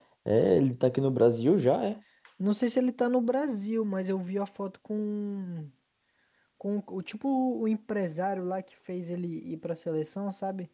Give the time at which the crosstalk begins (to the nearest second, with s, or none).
none